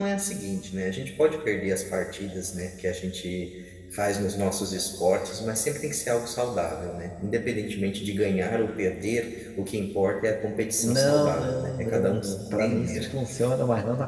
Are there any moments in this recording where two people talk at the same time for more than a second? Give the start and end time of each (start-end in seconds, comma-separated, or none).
10.8-13.1